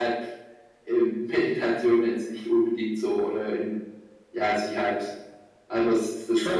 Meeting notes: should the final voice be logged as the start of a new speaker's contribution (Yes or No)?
No